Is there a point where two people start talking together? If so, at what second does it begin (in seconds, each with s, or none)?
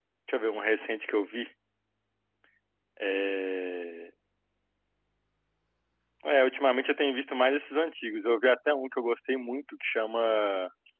none